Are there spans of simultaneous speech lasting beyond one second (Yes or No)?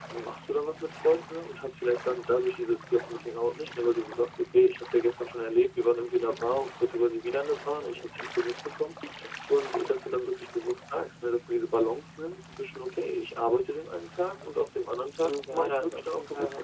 Yes